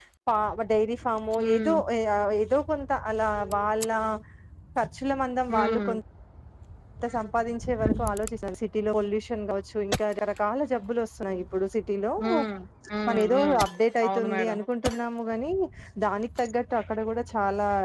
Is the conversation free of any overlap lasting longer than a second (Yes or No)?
Yes